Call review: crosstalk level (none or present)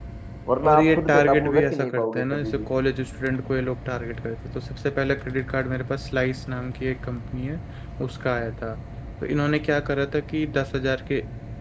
present